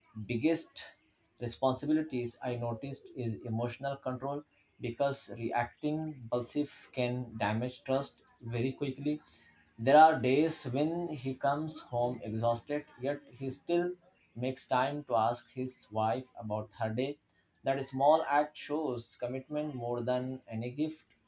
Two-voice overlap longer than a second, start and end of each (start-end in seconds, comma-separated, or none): none